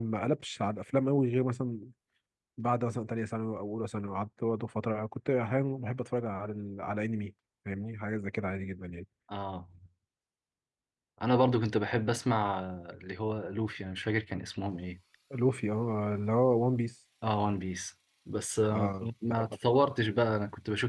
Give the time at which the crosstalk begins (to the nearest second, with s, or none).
19 s